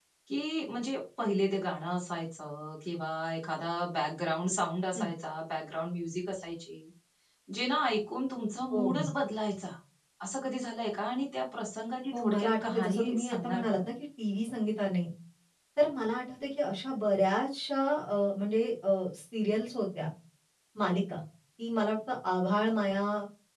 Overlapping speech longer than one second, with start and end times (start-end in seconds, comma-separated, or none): 12.1-13.8